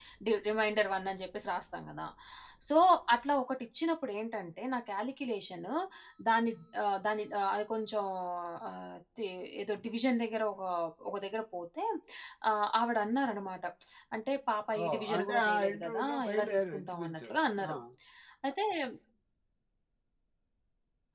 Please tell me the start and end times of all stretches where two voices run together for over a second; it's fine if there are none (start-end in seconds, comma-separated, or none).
14.8-17.3